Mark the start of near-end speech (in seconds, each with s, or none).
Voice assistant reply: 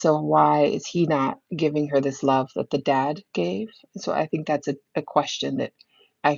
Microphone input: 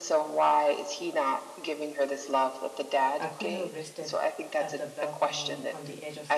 3.2 s